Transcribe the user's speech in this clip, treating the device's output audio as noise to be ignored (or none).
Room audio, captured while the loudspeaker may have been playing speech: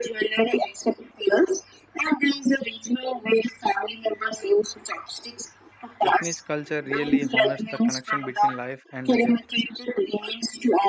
Japanese culture really honors the connection between life and the death.